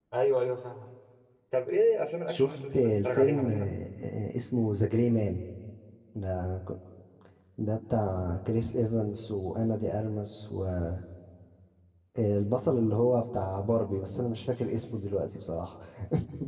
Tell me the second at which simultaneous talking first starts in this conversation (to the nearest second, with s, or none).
2 s